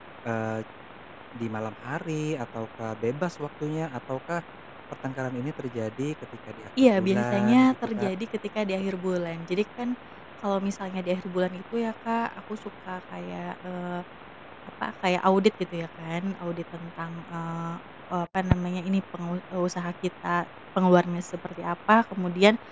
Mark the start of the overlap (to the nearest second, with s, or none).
7 s